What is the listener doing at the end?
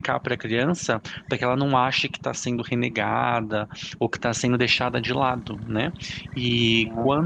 listening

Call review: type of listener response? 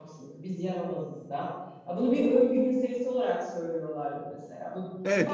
taking over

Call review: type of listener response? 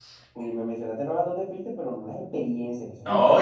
taking over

